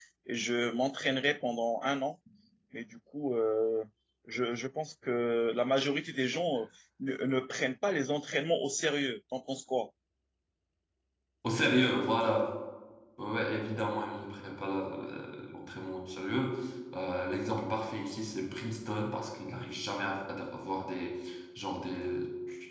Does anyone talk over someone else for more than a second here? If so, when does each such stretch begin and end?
none

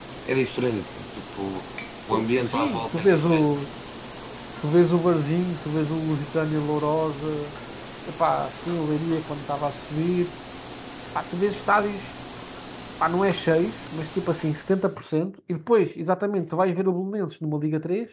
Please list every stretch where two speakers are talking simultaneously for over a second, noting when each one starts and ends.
2.1-3.5

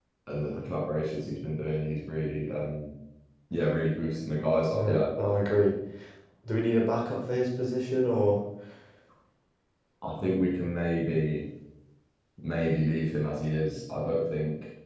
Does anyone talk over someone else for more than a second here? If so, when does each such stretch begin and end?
none

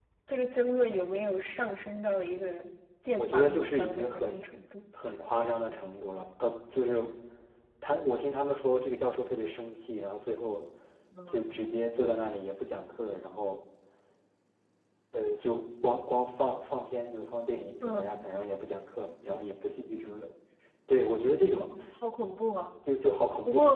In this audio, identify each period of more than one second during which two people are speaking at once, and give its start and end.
3.1-4.5

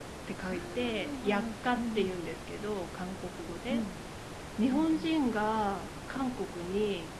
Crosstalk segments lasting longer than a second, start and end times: 0.5-2.3

